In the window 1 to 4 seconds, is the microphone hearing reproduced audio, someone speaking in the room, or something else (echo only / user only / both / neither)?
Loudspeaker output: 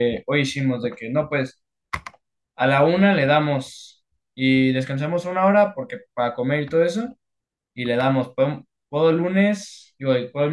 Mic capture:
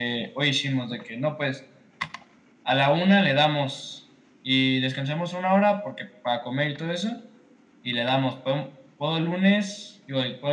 echo only